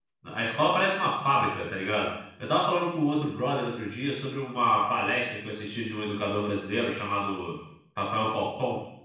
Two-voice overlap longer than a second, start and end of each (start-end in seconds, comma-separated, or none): none